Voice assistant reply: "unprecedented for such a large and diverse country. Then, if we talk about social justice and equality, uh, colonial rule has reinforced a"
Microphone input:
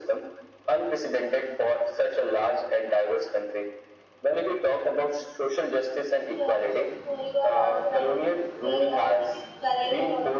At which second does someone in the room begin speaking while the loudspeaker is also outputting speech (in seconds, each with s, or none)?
6.4 s